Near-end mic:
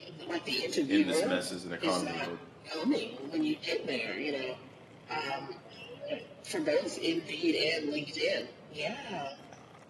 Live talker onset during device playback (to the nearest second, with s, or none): 1 s